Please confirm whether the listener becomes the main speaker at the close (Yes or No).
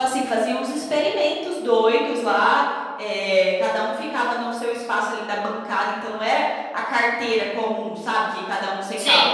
No